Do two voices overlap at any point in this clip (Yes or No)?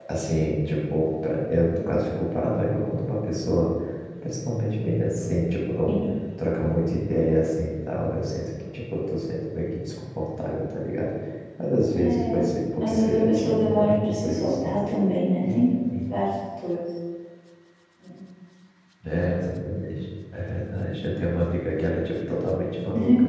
Yes